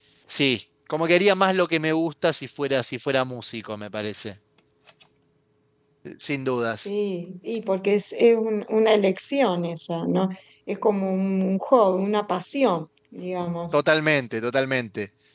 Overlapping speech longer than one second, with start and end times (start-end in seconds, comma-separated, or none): none